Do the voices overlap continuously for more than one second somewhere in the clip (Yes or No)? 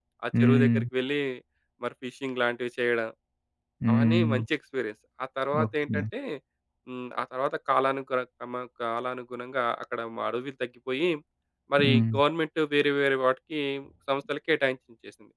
No